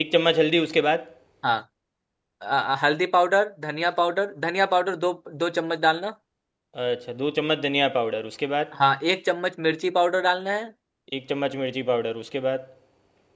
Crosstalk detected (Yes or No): No